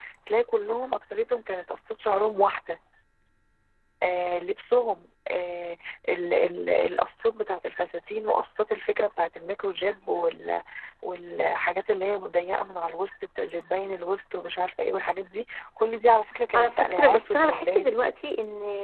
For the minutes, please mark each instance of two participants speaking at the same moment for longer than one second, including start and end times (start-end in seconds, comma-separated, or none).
16.5-17.9